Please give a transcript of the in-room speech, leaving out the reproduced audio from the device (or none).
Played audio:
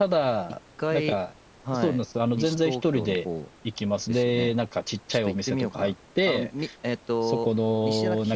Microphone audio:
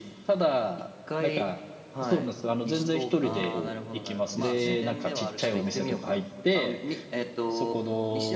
ああ、なるほど、なるほど。まあ、自然ではあるけど、